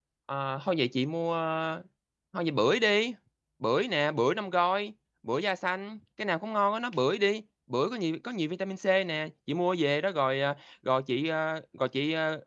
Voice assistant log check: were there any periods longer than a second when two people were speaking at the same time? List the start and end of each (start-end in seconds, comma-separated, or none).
none